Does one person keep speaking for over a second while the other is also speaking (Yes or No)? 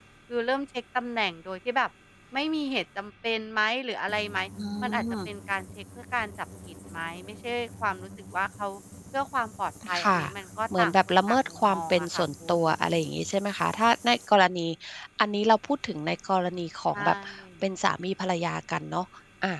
Yes